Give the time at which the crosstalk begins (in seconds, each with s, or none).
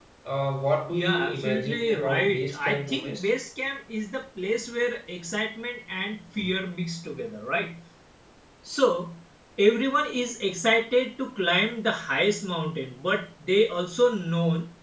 0.9 s